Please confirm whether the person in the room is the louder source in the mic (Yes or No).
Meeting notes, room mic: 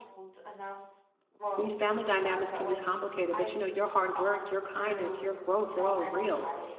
Yes